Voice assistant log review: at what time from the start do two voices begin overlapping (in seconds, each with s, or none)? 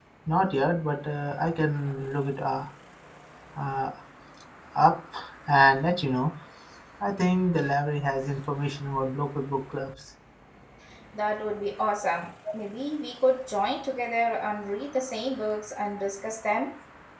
none